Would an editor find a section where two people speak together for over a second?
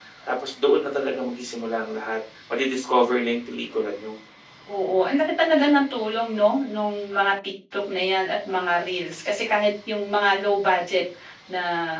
No

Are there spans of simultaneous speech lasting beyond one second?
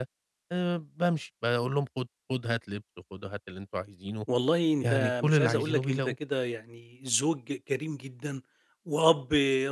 Yes, from 4.8 s

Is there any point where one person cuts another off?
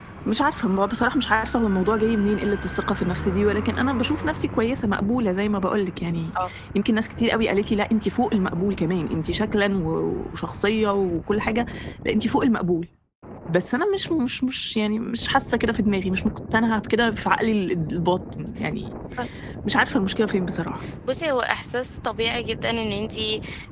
No

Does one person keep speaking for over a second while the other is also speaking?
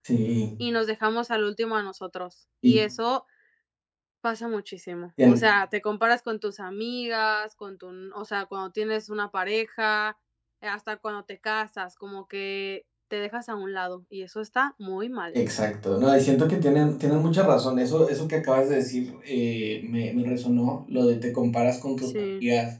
No

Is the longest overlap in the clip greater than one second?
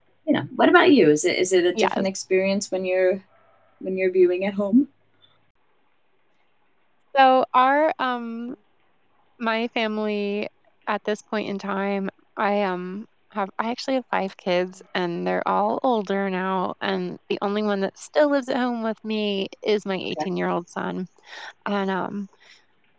No

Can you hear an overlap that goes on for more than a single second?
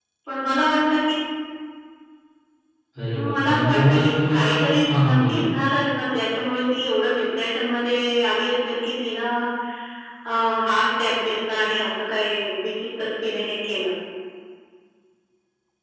Yes, from 3.1 s

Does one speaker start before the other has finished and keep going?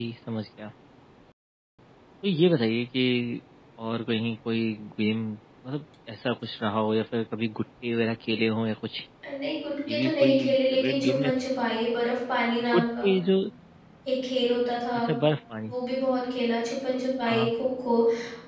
Yes, from 9.9 s

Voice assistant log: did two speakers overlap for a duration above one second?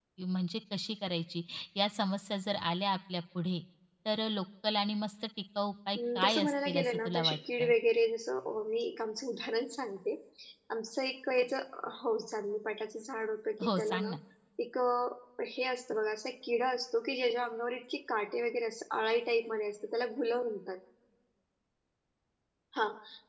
Yes, from 6.0 s

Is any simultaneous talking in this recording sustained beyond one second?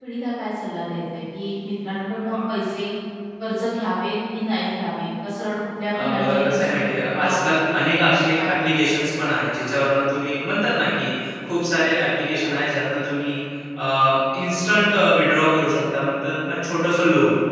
Yes, from 5.9 s

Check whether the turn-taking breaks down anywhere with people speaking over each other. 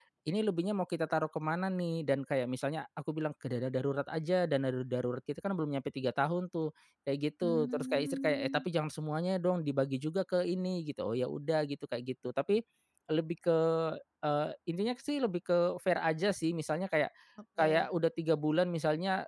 Yes, from 7.4 s

